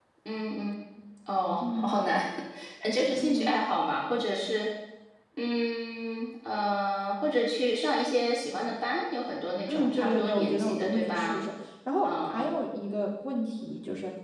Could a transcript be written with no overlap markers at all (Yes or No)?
No